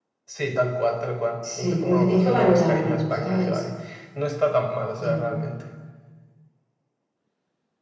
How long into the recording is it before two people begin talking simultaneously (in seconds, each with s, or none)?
1.4 s